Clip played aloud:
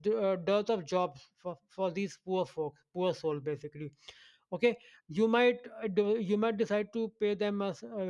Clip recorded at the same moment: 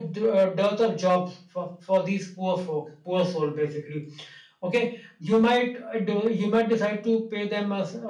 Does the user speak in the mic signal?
No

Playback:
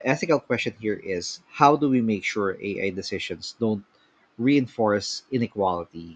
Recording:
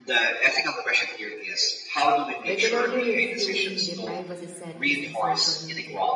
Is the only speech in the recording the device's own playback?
No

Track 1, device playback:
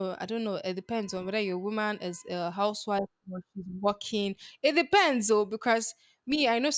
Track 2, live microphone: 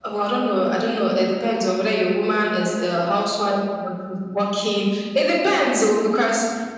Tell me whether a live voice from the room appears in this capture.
No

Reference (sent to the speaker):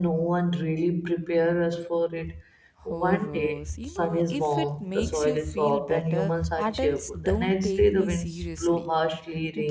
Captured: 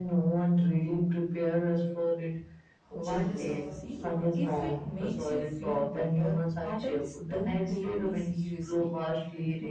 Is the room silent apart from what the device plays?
No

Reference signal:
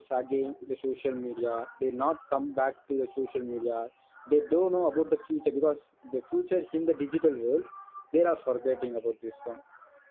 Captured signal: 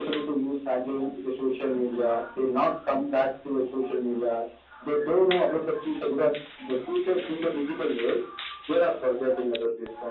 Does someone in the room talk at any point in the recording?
No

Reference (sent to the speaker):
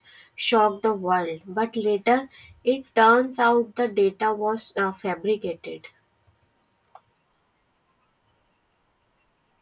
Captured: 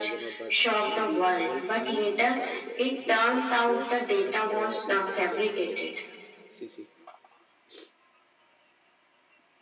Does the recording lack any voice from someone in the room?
No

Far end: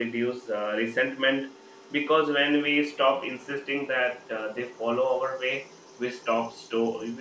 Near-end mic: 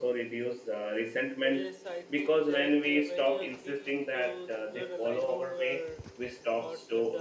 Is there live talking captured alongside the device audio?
Yes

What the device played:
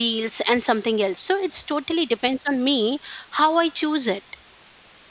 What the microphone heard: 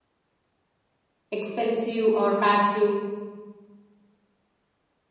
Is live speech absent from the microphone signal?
No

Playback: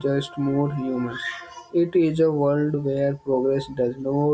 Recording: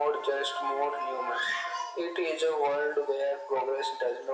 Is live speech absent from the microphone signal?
Yes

